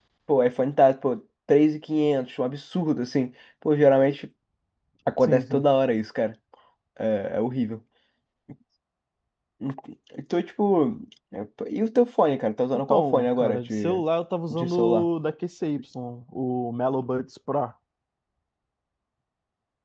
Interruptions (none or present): present